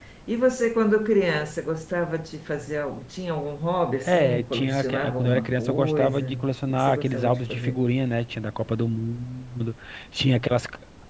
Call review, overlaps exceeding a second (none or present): present